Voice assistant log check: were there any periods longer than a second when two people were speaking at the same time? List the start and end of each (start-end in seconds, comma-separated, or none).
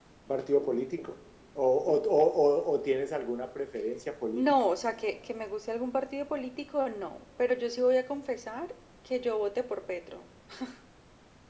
none